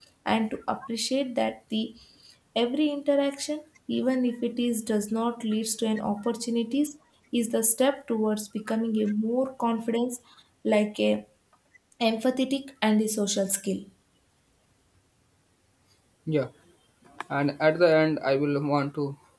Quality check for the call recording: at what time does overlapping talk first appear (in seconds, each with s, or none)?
none